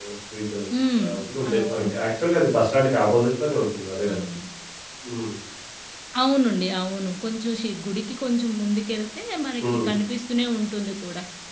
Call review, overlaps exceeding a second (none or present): none